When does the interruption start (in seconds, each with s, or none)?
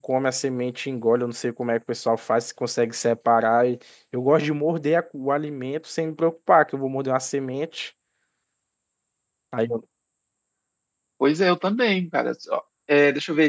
none